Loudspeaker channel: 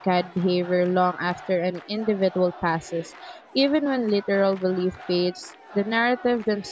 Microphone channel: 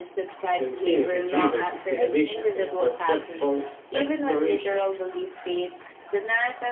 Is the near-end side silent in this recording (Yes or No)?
No